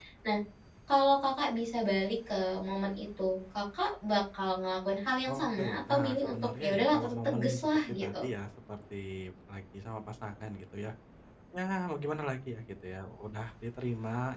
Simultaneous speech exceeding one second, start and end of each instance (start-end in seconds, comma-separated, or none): 5.3-8.2